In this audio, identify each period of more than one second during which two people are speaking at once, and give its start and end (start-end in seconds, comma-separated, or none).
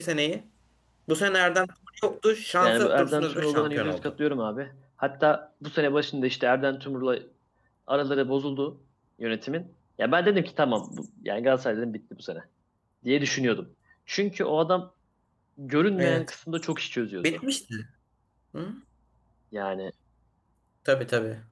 2.6-4.1